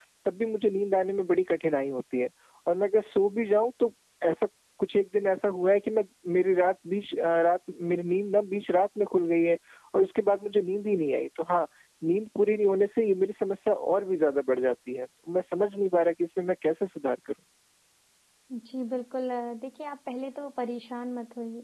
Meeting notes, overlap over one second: none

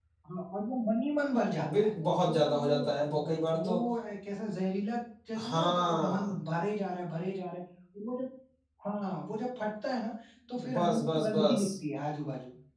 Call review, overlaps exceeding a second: present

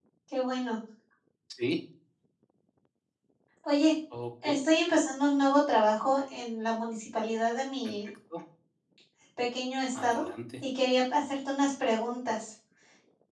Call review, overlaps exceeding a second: none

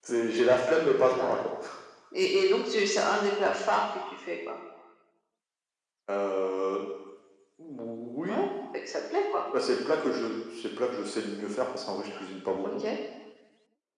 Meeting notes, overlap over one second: none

